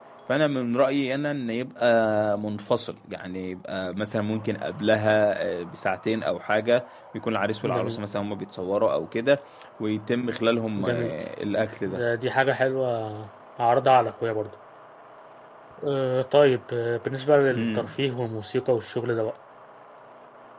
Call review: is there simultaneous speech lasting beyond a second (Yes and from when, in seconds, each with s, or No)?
No